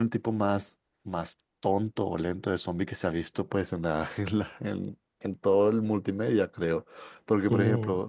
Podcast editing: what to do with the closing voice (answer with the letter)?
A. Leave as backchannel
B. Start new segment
A